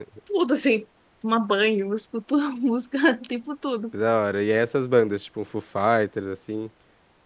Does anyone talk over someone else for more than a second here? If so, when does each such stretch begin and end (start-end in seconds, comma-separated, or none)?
none